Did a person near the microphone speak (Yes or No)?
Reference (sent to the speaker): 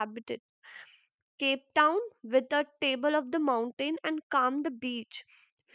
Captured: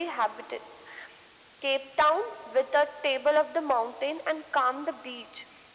No